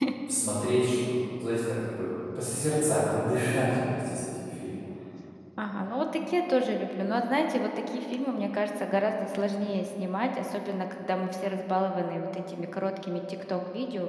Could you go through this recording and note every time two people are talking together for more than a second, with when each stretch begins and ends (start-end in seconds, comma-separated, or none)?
none